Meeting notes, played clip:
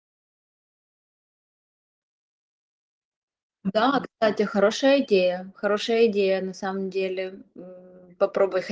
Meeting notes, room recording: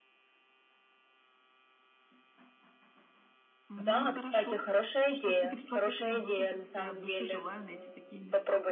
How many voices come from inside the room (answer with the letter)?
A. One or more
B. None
A